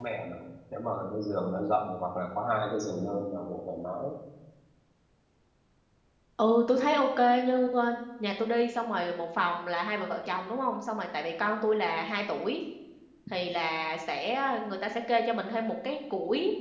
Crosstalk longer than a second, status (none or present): none